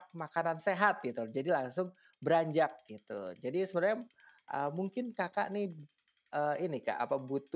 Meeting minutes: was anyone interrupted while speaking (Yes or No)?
No